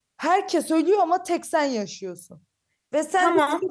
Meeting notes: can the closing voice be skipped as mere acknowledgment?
Yes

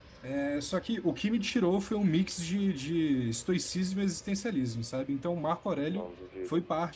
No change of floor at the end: Yes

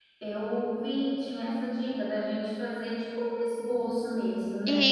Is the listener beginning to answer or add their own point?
No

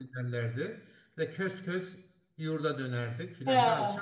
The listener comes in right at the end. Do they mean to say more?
No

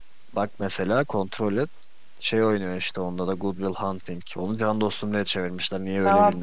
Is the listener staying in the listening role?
No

